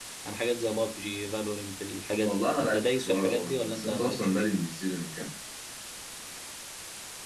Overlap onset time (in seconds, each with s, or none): 2.2 s